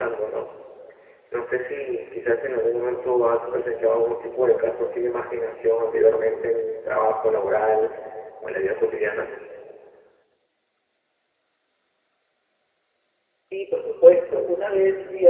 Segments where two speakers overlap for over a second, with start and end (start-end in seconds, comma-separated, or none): none